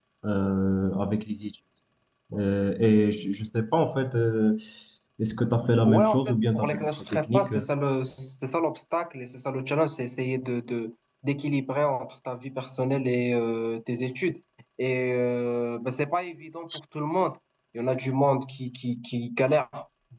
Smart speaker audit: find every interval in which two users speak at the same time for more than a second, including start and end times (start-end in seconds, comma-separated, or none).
5.8-7.6